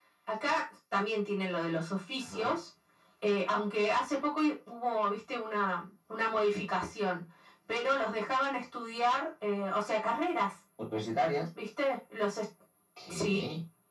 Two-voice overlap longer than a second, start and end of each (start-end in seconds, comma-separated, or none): none